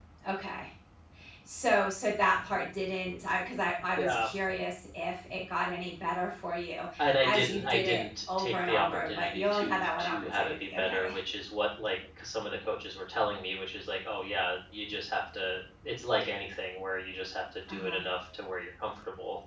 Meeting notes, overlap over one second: present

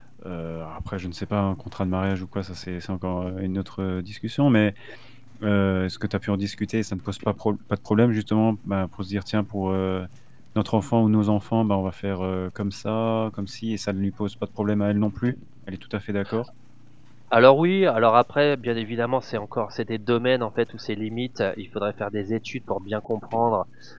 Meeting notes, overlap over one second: none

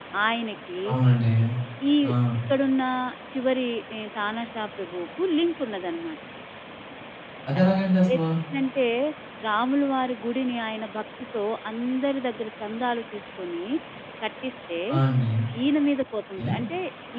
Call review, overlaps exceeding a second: none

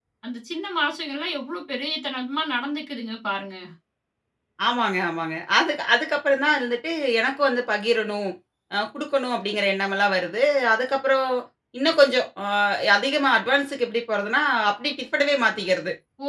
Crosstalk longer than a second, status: none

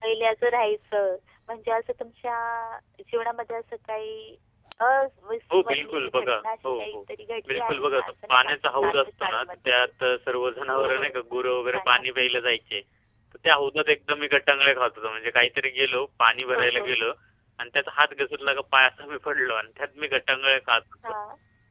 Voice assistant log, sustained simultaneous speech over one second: present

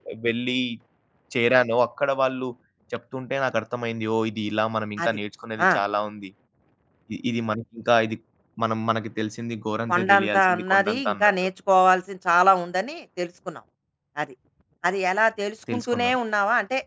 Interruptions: present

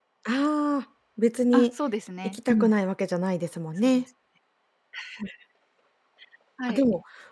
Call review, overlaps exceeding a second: none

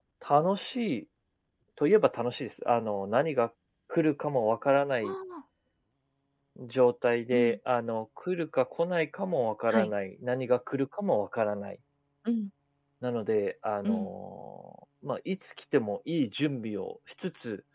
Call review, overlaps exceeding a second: none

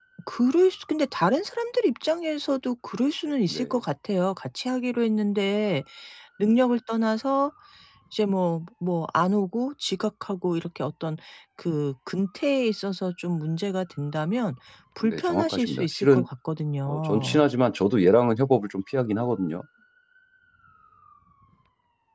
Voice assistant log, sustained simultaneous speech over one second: present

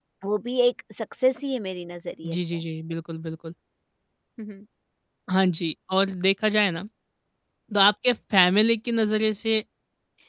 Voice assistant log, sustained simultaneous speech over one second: none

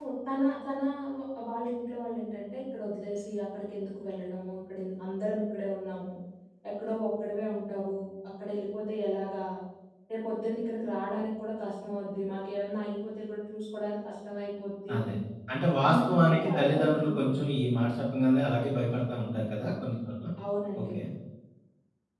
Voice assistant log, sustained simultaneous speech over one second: present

